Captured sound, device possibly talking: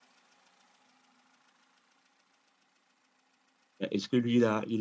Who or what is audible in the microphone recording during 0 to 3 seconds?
neither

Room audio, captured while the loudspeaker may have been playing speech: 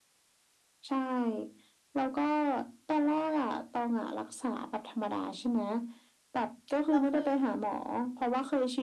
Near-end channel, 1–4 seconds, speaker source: echo only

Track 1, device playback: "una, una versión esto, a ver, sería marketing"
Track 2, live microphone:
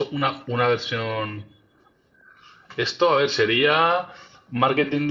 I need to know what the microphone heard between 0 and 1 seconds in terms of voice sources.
echo only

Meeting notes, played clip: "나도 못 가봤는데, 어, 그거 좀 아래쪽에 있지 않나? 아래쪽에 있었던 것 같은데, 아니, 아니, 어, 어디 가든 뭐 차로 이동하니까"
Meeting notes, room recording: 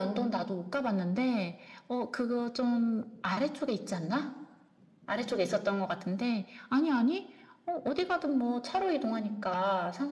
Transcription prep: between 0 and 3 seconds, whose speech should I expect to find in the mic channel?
echo only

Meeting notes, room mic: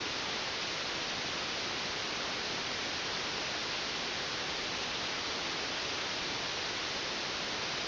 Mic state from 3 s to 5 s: neither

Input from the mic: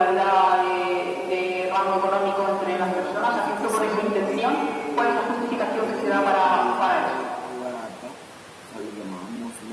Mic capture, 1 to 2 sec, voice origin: echo only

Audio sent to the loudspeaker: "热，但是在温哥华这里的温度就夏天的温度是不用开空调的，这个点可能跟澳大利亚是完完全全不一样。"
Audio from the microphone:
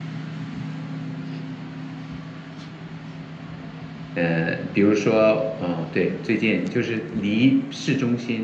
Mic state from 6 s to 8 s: user only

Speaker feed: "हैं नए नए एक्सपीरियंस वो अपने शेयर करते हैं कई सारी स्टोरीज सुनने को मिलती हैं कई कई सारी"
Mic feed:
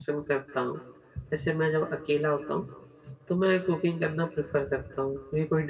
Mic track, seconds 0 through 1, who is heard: user only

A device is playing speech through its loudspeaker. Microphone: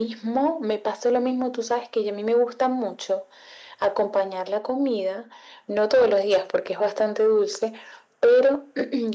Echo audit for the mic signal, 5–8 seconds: echo only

